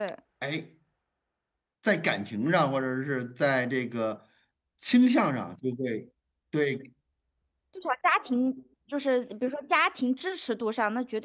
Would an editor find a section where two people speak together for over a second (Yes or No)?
No